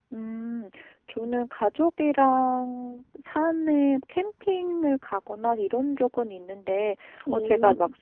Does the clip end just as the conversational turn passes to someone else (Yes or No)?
No